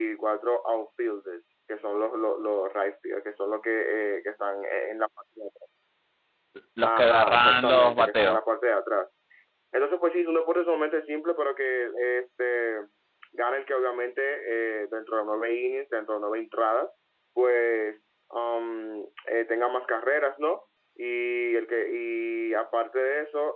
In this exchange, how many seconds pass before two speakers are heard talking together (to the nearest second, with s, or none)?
7 s